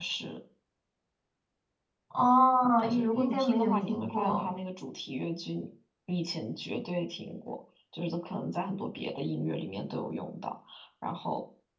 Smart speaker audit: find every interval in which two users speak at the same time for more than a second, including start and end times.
2.8-4.6

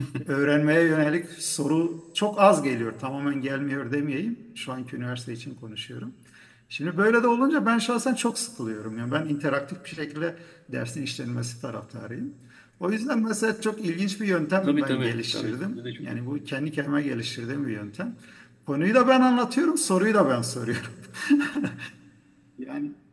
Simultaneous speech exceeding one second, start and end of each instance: 14.6-16.4

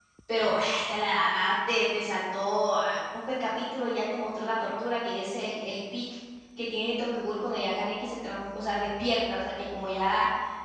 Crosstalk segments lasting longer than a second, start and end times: none

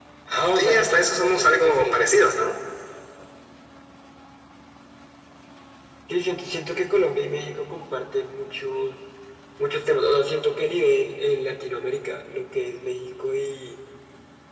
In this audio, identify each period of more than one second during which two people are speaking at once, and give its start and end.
0.6-2.3

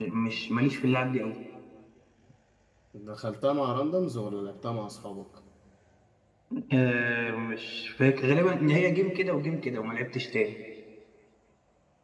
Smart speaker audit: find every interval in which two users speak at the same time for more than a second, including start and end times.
none

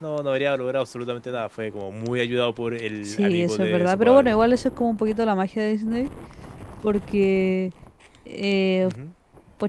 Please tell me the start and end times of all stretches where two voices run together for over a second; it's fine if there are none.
3.1-4.4

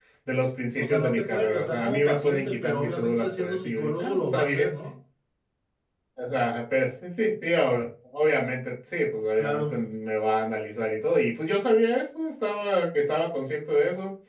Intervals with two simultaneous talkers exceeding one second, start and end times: 0.8-4.7

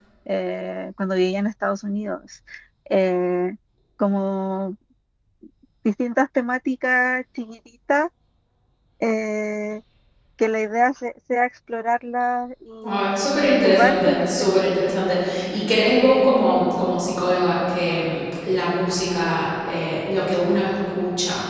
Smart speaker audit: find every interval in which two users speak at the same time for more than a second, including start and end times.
12.8-14.6

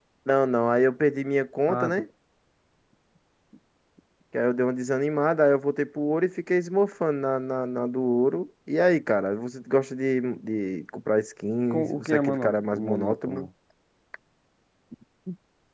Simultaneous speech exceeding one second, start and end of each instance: 11.7-13.5

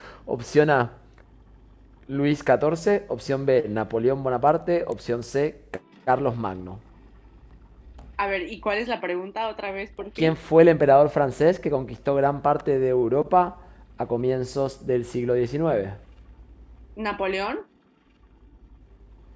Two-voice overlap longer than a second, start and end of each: none

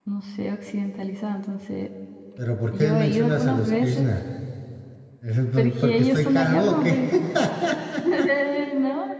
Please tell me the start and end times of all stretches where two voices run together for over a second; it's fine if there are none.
2.8-4.1, 5.6-7.0

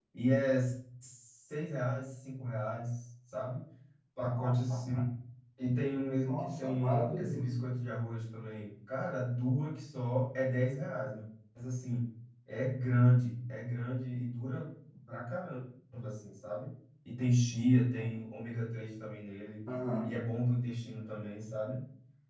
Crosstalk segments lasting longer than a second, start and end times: 6.2-7.5

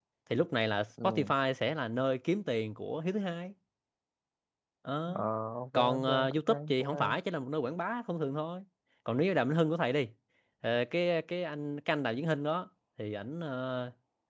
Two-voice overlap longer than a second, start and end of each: 5.7-7.1

